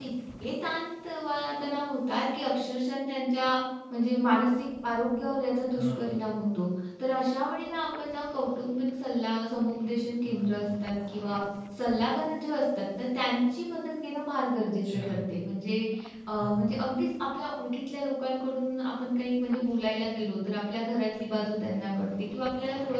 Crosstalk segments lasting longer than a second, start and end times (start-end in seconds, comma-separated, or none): none